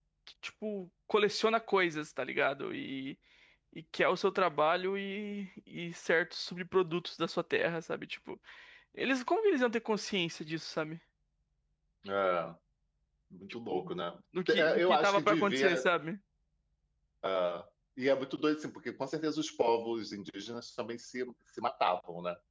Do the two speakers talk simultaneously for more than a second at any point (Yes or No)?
Yes